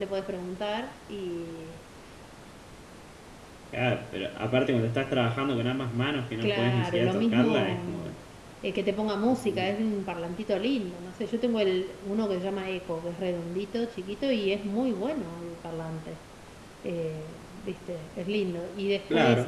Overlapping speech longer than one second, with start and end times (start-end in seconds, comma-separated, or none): 6.4-8.0